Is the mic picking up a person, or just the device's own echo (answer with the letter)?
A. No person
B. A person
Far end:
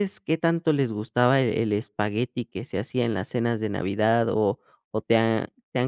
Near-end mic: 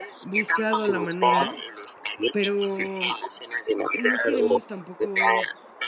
B